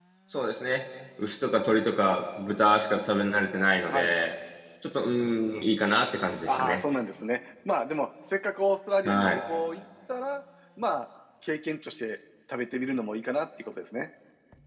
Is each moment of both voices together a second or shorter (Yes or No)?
Yes